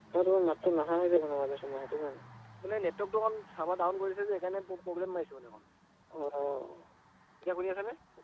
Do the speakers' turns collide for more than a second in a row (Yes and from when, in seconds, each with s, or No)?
No